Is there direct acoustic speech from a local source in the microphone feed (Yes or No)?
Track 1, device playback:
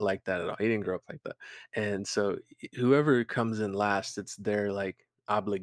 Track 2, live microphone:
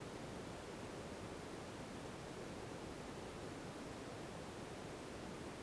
No